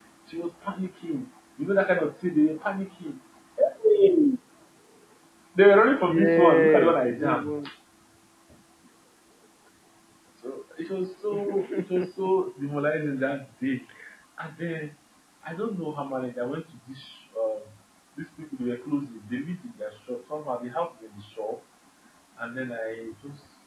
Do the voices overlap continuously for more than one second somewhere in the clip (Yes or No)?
Yes